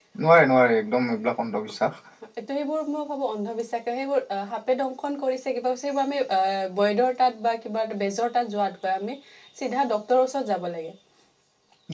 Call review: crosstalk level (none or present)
none